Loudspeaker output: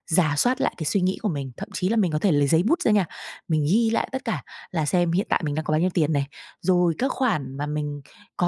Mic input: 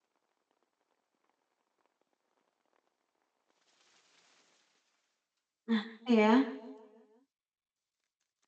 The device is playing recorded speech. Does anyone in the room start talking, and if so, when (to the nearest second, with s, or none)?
6 s